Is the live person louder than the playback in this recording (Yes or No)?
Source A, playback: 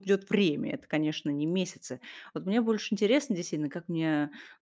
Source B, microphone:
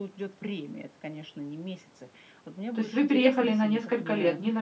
Yes